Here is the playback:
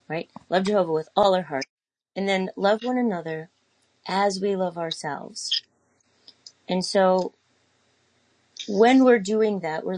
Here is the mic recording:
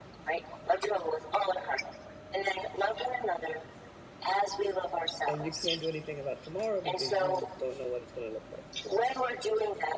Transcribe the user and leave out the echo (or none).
And you can't do anything about tomorrow because you don't know what it's going to look like.